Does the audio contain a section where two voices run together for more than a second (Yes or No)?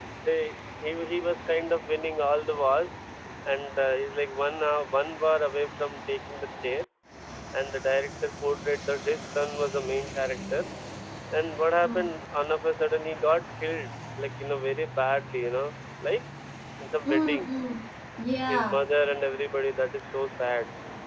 No